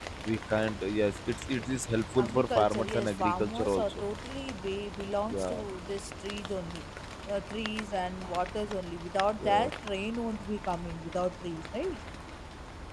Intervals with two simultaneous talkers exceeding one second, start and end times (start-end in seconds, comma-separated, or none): 2.2-4.0